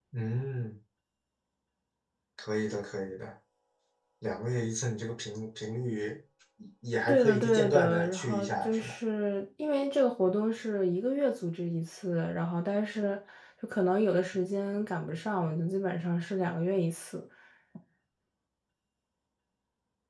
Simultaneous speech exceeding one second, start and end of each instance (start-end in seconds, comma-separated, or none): 7.1-8.9